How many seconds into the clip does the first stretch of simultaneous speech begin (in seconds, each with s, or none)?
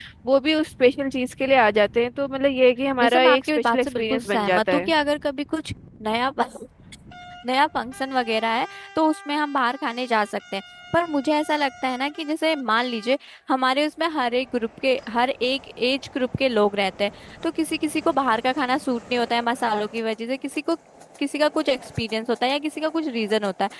3.0 s